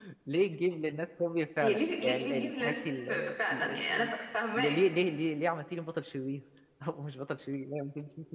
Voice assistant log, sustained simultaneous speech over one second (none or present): present